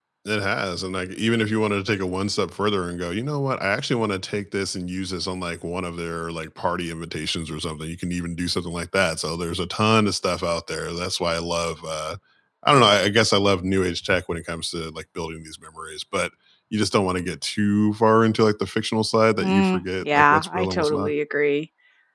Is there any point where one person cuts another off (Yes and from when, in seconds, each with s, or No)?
Yes, from 19.4 s